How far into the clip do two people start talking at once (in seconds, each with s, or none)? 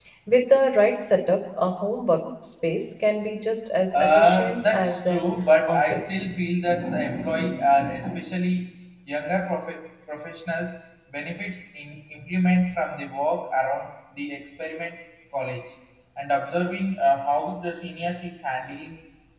3.9 s